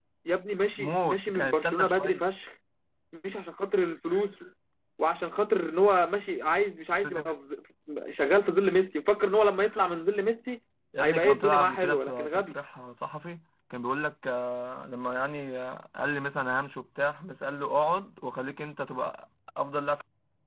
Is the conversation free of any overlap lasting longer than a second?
No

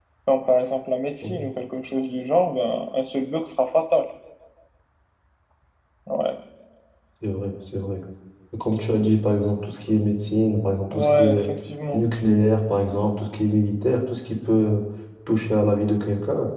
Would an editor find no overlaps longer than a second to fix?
Yes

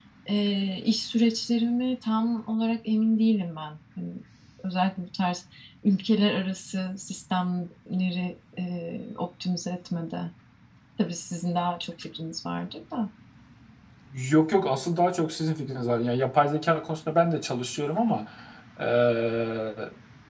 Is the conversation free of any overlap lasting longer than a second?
Yes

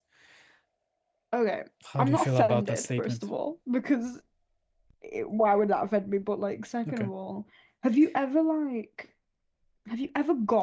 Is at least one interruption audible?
Yes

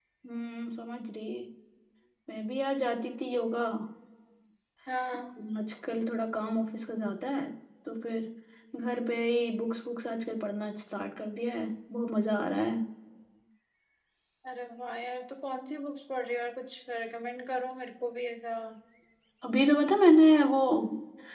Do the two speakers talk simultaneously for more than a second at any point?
No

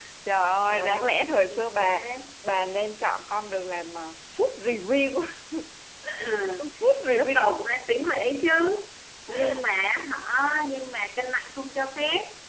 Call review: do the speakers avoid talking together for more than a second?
No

